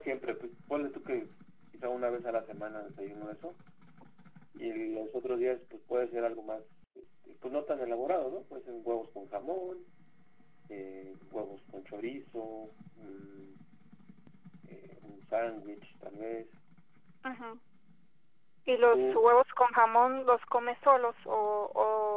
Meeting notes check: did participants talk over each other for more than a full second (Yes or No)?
No